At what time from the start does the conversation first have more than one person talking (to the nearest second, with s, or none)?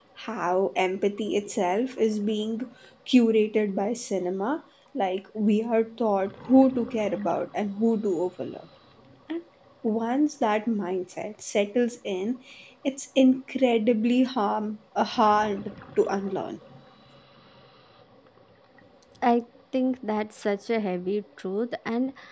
none